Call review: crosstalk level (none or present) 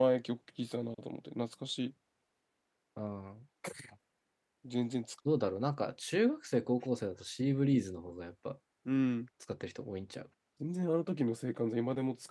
none